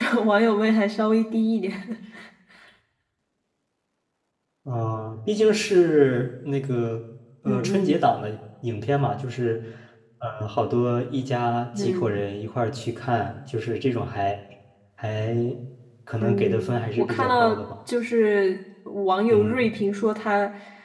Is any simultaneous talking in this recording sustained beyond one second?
Yes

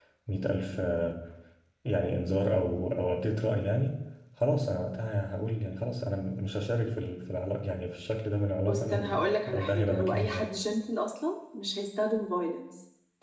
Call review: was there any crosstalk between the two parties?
Yes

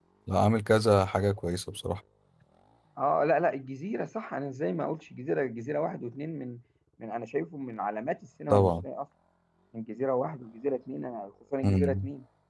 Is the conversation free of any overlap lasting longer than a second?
Yes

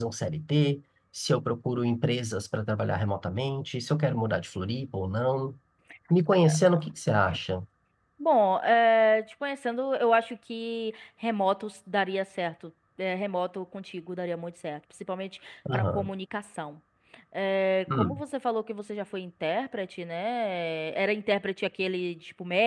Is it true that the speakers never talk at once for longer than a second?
Yes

